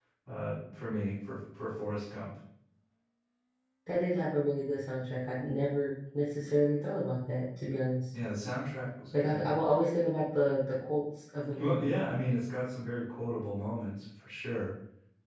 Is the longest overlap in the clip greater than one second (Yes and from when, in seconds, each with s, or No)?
No